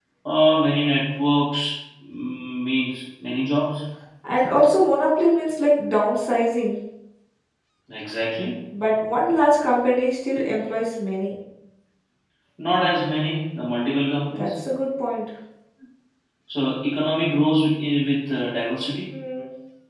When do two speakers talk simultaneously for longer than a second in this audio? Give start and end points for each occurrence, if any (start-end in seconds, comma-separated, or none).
none